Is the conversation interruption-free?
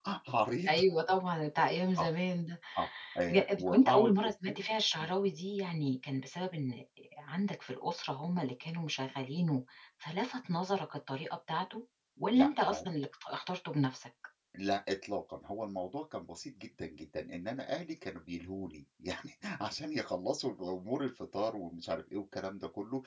No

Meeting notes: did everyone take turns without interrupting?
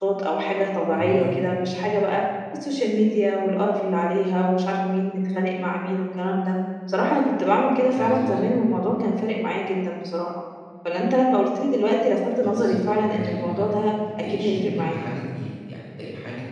No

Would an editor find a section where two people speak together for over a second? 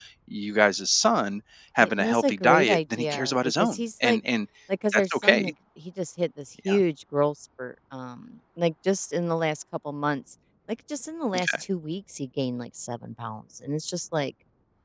Yes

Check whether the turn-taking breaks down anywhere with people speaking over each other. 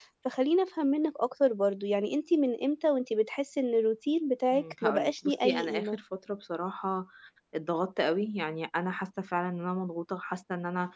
Yes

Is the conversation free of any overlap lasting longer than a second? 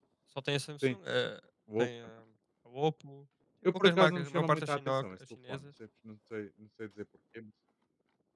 No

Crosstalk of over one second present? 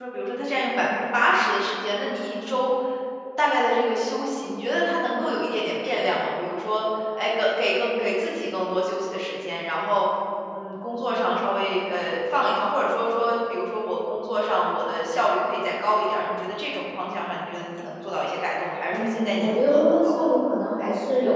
Yes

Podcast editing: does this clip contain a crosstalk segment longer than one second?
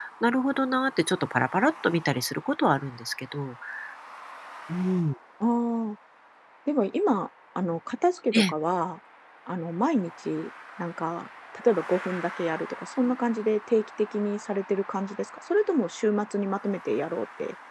No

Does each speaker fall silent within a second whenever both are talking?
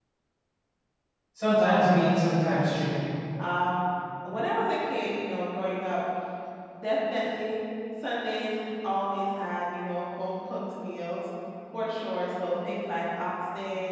No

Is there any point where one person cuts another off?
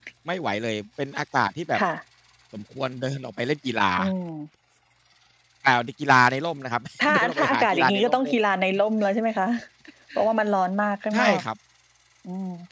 Yes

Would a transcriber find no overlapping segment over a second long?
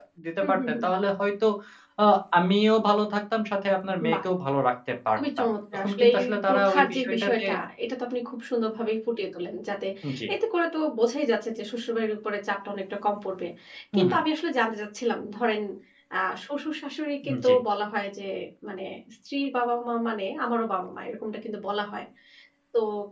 No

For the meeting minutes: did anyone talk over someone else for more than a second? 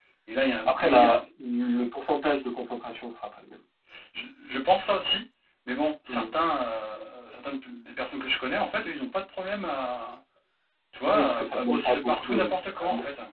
Yes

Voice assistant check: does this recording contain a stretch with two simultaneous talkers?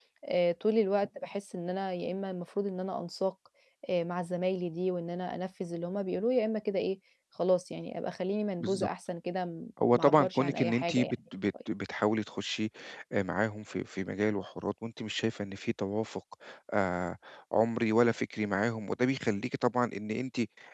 Yes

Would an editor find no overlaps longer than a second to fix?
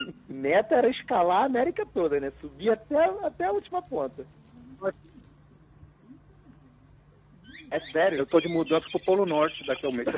Yes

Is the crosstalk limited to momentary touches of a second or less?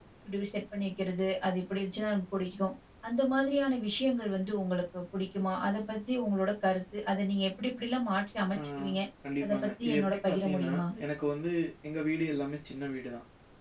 No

